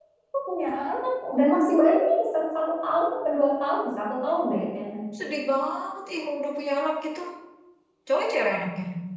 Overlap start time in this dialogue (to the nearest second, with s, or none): none